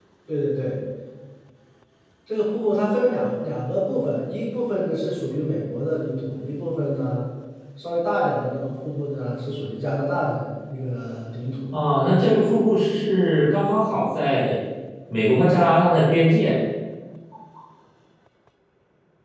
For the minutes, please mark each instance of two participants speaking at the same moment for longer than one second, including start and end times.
none

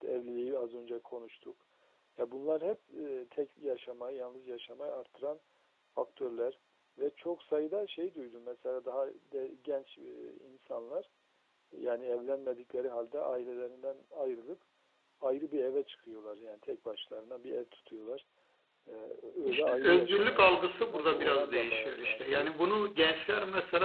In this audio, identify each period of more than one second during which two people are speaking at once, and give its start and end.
19.5-22.5

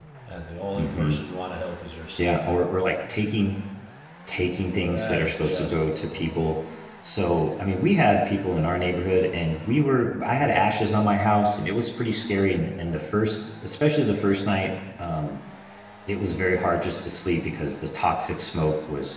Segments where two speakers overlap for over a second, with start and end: 4.9-6.5

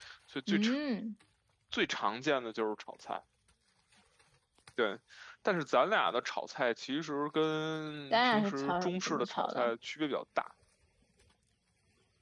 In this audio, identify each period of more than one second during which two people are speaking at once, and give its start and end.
8.1-9.7

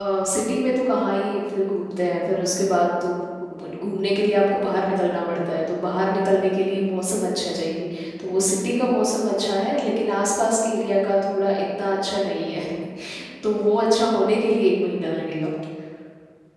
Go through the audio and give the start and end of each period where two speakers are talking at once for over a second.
none

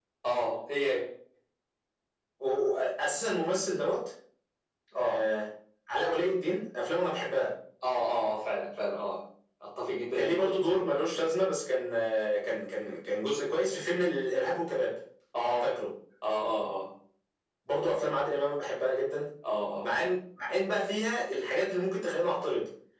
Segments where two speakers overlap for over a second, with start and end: none

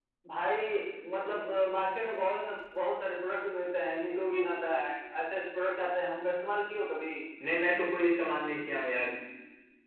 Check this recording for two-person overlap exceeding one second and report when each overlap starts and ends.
none

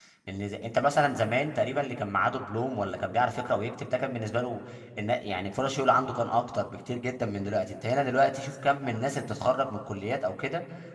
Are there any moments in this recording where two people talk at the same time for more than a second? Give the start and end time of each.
none

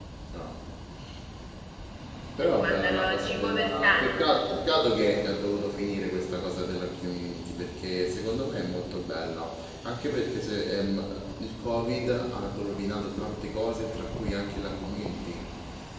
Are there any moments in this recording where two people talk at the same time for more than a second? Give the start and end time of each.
2.4-4.2

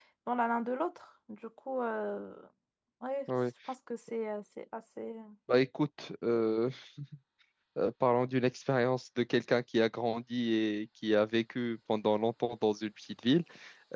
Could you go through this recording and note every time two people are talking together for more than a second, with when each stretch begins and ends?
none

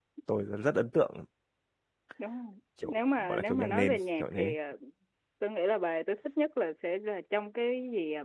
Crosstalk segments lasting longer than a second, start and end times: 2.9-4.5

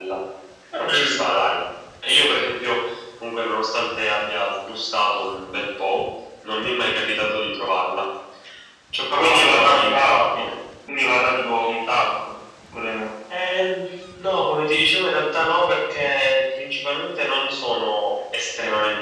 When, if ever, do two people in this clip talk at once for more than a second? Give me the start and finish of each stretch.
9.1-10.5

